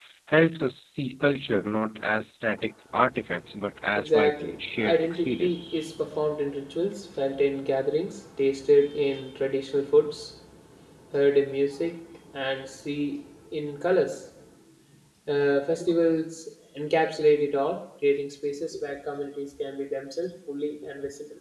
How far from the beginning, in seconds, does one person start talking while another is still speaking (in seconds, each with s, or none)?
4.0 s